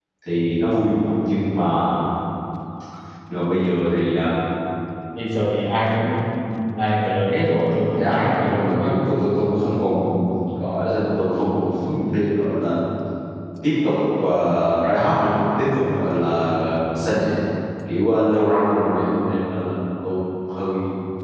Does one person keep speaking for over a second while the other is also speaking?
Yes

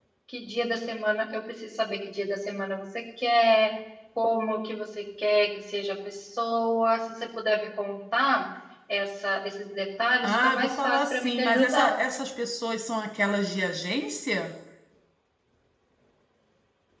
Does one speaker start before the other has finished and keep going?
Yes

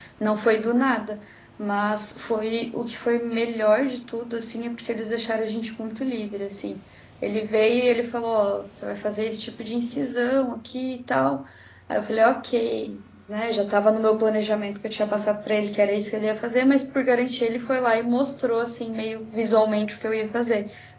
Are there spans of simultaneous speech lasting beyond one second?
No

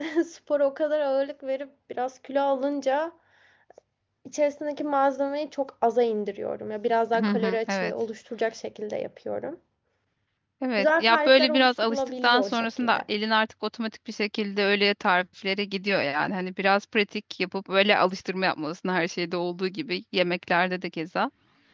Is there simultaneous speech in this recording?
Yes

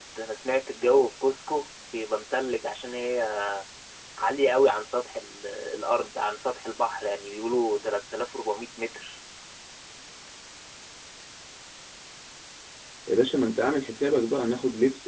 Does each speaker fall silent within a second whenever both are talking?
Yes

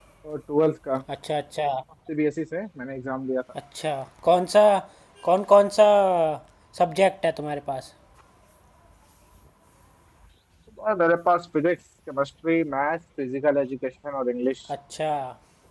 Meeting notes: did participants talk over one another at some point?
No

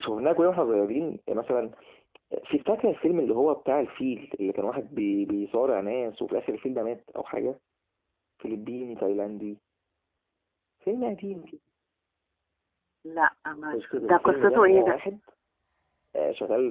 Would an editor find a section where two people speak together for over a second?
Yes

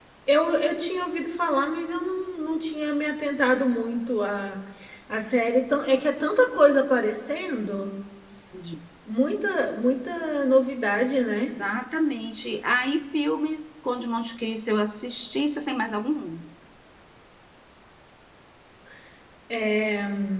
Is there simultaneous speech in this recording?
No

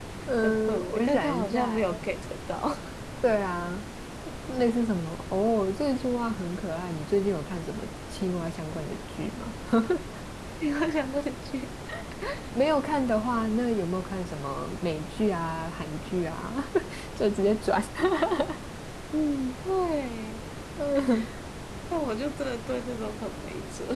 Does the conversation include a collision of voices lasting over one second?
Yes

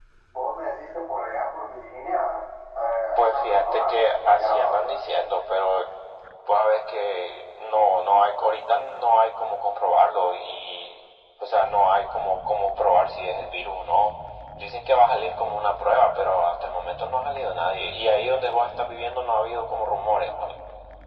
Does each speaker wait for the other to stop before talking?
No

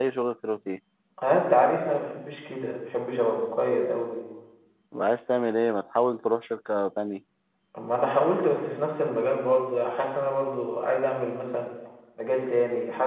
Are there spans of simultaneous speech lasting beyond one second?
No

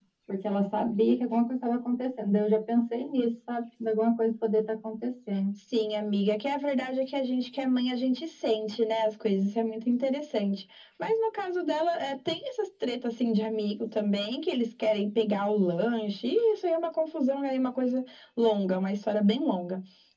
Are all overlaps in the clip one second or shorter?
Yes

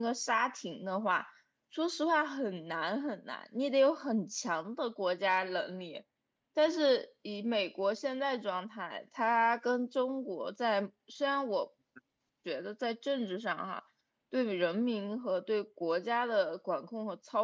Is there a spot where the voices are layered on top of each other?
No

